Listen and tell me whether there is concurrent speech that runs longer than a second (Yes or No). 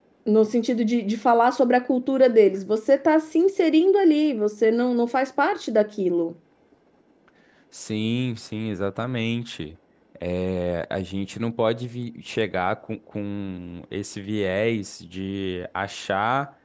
No